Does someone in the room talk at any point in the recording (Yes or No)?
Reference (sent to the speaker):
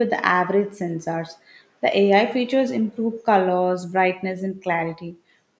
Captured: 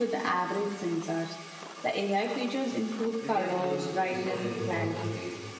Yes